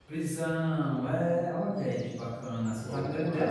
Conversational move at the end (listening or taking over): taking over